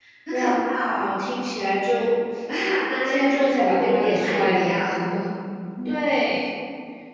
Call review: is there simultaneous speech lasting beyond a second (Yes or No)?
Yes